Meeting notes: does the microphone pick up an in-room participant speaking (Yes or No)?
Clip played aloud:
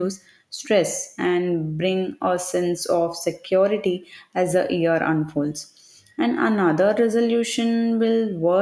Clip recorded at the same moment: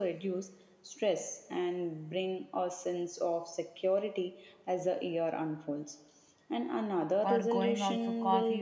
Yes